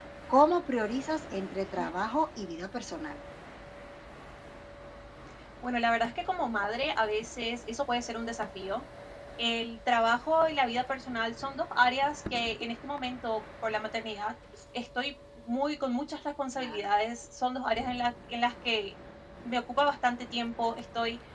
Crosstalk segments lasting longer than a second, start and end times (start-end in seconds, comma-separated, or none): none